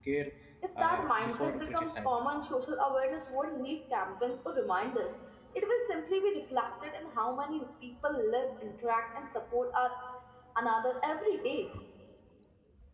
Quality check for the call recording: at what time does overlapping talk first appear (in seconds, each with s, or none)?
0.8 s